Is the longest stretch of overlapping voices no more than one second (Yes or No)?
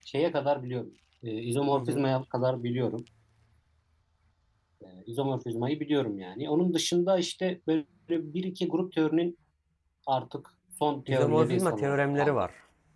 No